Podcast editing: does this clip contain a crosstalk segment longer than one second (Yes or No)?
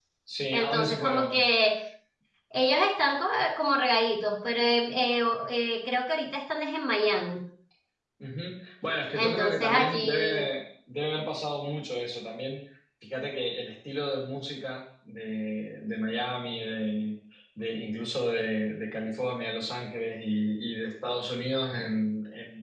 Yes